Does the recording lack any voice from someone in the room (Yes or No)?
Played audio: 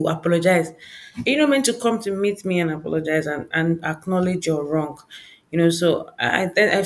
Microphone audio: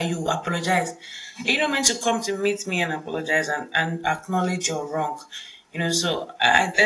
Yes